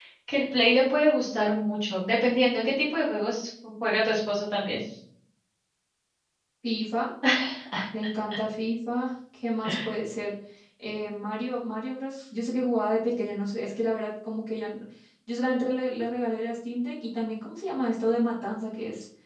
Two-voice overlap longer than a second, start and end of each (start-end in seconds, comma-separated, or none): none